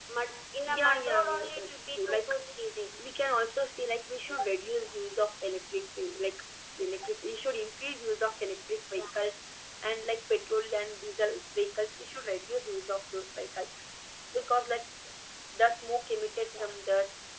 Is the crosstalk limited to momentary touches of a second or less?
No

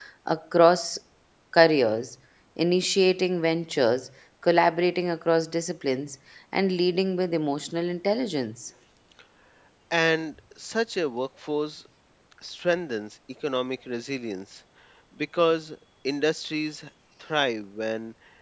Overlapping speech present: No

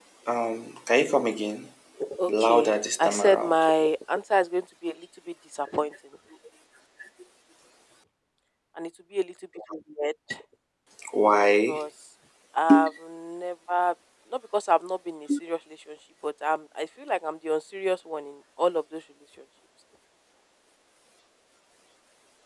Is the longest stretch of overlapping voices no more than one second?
No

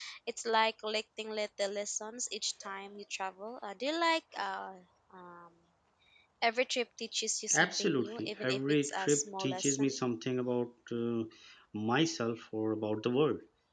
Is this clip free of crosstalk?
No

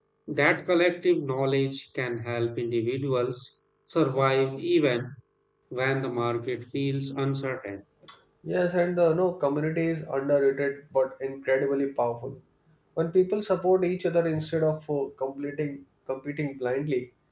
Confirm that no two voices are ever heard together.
Yes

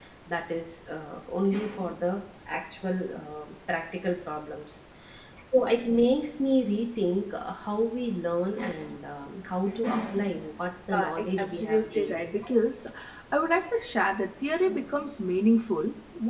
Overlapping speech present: Yes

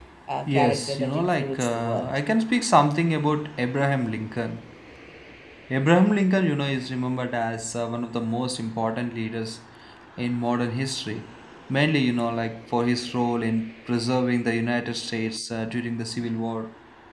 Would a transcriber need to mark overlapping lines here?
Yes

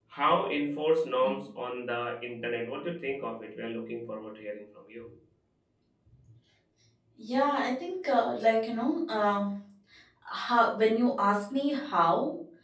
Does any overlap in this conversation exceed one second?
No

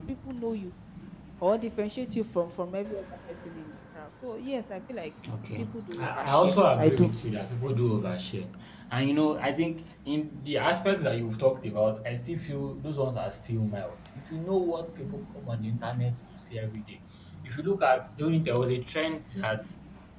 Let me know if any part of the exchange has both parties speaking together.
Yes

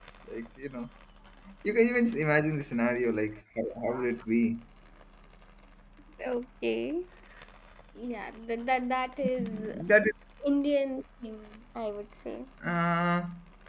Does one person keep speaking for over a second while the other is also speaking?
No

